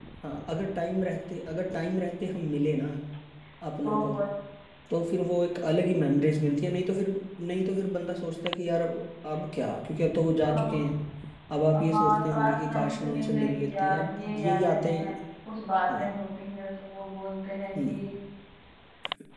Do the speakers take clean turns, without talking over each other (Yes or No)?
No